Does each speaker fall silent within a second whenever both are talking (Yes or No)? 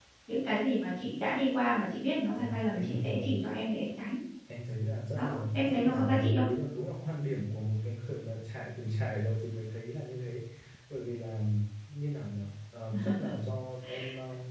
No